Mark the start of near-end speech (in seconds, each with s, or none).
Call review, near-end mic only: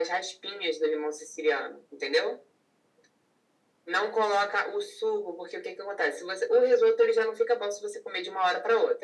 none